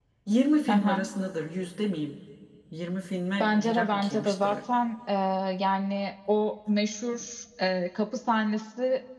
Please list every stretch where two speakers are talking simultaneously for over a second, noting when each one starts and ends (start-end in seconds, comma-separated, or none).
3.4-4.6